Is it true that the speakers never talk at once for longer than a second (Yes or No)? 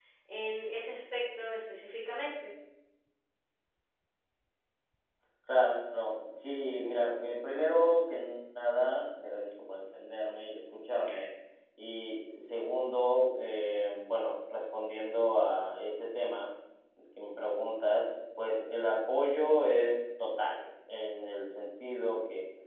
Yes